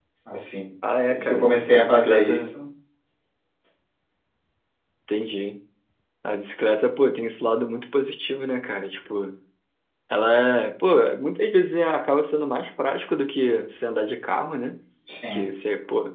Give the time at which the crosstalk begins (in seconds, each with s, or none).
1.1 s